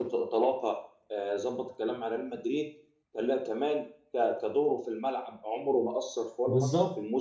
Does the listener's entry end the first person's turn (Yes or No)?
Yes